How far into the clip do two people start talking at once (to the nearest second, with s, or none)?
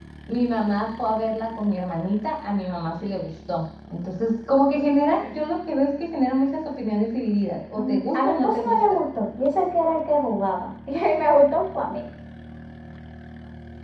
8 s